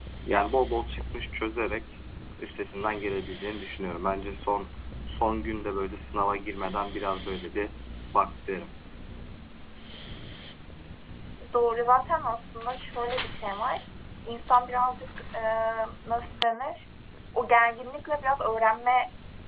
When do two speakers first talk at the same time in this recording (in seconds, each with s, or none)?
none